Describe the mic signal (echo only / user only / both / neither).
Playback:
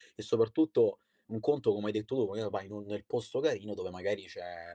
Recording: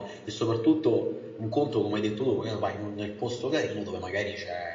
echo only